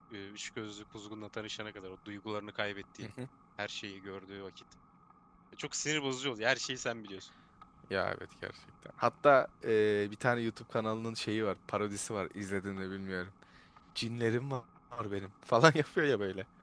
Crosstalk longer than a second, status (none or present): none